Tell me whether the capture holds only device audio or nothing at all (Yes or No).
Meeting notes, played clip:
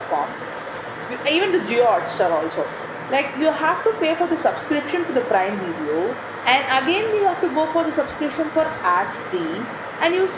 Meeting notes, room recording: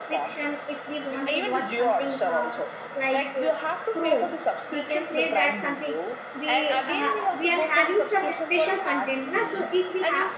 No